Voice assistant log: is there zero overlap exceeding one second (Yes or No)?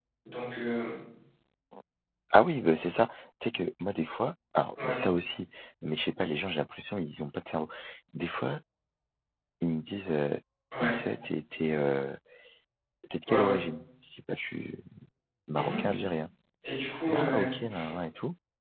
Yes